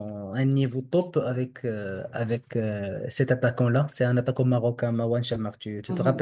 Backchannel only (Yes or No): No